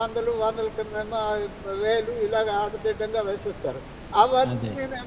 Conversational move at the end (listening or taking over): listening